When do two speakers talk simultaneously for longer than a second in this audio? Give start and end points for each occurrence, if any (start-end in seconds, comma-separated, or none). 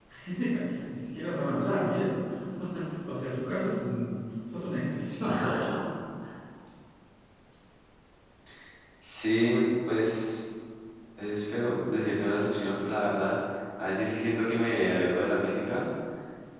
none